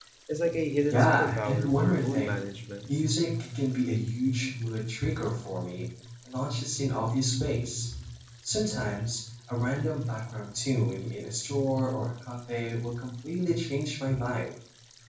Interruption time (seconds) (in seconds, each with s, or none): 0.9 s